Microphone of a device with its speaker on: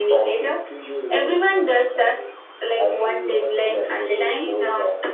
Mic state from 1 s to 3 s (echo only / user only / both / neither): echo only